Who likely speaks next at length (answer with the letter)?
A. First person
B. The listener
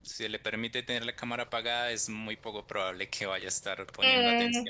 B